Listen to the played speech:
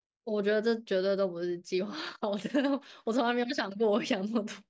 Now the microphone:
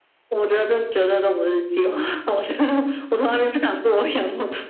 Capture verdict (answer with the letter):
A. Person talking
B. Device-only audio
B